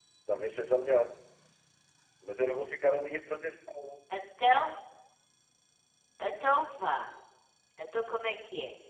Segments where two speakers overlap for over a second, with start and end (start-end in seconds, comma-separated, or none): none